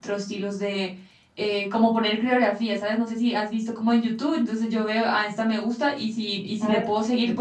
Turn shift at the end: No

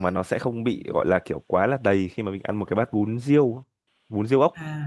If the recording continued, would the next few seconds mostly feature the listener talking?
Yes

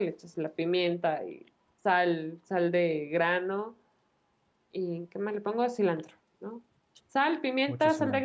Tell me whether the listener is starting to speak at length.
No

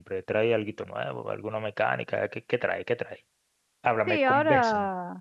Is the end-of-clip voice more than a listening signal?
Yes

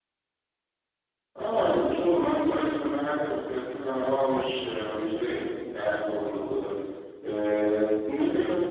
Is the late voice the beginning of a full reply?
No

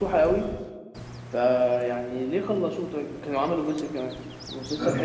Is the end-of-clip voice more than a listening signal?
No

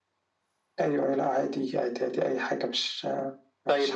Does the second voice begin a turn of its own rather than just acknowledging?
Yes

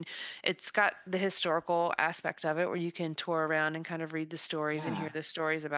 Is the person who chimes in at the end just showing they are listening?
Yes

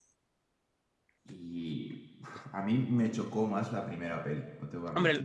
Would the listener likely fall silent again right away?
No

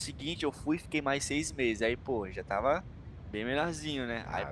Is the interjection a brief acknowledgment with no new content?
Yes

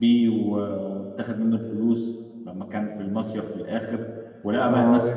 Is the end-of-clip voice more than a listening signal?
No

